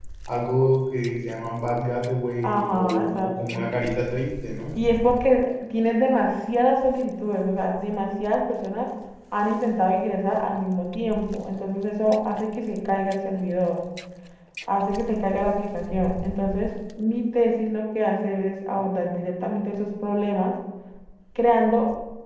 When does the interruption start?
2.4 s

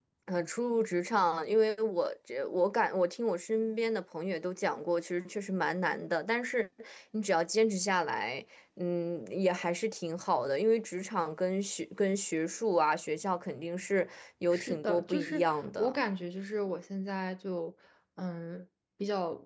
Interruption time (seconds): 14.5 s

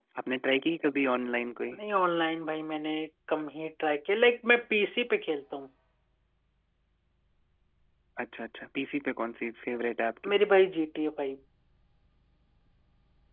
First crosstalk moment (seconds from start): none

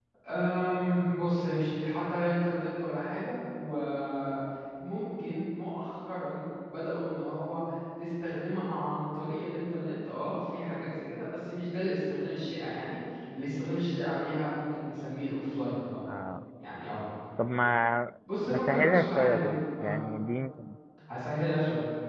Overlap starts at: 18.5 s

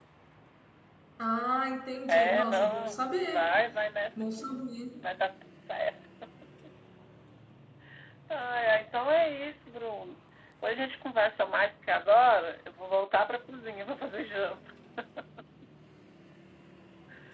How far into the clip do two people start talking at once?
2.1 s

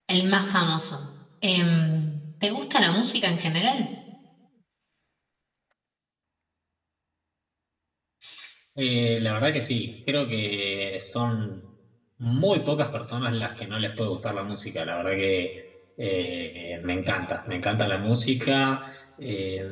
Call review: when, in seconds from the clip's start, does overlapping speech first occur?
none

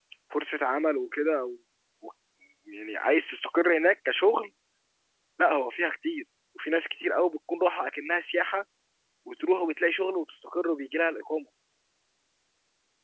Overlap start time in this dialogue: none

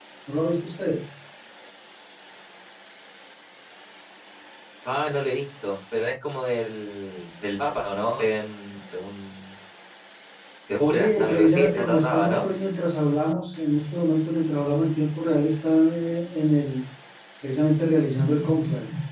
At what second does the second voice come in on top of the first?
10.9 s

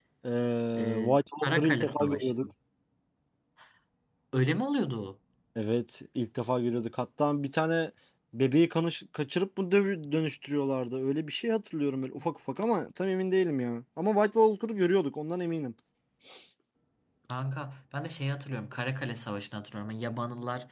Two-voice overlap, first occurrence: 0.8 s

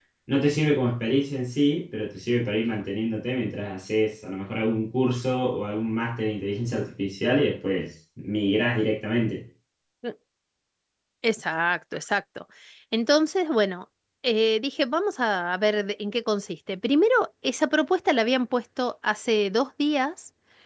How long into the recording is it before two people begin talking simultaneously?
none

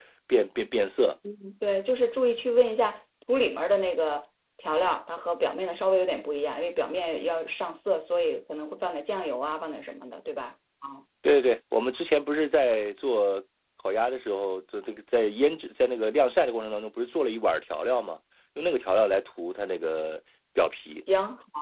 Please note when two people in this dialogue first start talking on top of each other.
none

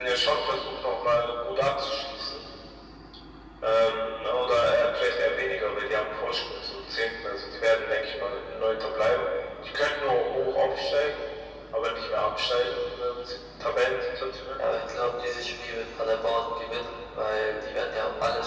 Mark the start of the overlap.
none

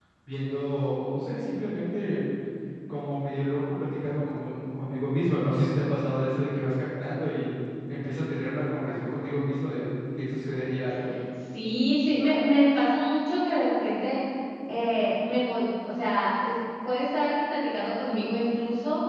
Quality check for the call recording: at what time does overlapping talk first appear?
none

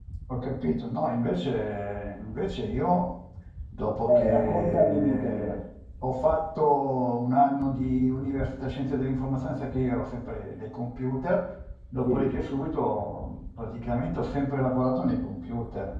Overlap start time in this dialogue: 4.1 s

